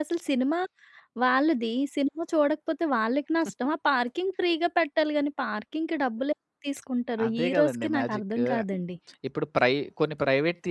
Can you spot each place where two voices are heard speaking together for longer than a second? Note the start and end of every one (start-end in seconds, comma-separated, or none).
7.3-8.5